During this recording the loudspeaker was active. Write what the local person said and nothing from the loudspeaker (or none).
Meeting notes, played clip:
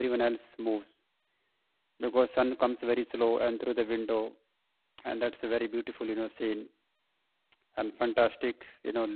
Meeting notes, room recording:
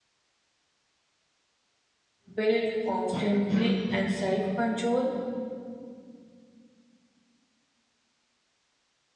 build constantly and self control